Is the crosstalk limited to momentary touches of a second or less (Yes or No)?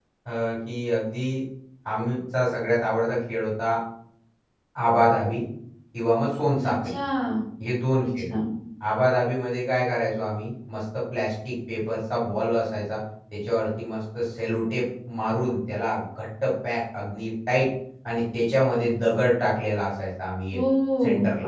Yes